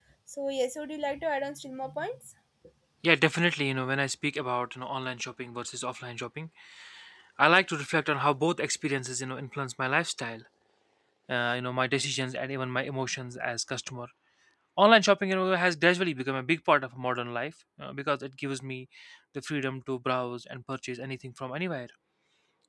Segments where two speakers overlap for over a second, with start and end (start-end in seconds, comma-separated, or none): none